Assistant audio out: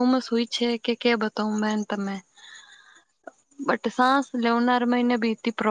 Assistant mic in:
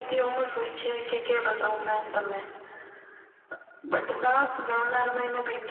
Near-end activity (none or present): none